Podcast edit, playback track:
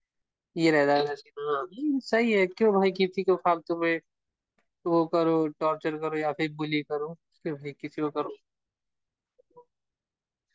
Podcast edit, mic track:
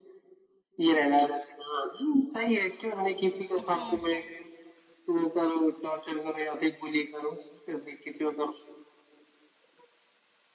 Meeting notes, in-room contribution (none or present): present